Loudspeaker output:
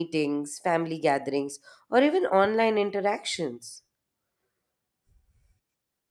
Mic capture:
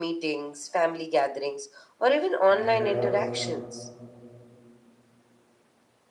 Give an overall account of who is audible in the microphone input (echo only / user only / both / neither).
both